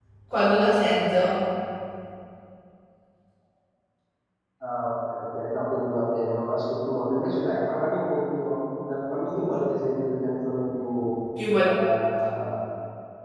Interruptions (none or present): none